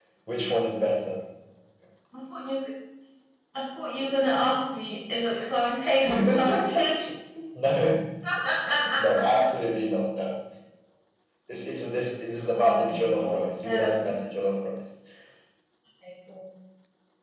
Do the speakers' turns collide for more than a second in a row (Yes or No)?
Yes